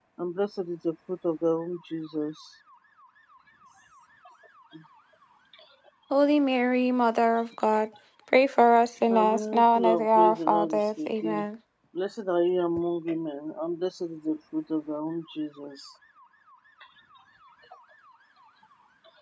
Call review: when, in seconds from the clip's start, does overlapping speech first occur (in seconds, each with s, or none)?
9.1 s